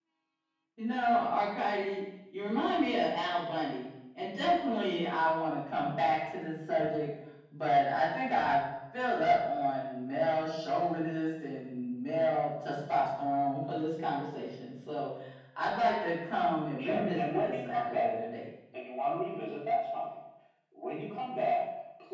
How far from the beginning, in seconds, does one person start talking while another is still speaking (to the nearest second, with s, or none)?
17 s